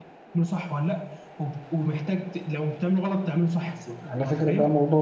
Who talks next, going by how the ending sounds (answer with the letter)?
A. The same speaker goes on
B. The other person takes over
B